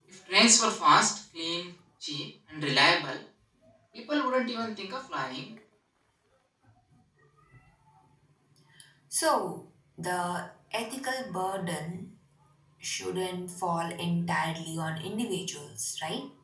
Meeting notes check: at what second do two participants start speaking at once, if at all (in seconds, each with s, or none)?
none